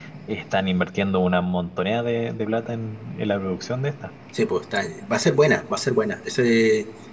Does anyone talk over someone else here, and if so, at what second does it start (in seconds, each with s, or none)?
none